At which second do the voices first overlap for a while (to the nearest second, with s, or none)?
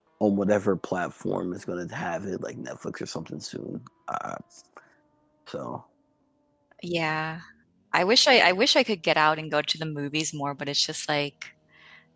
none